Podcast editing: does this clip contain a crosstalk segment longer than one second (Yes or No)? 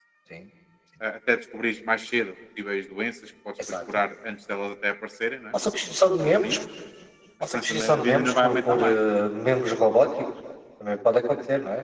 Yes